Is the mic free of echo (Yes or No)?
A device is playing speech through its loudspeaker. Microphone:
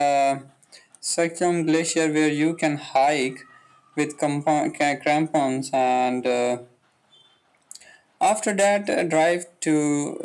No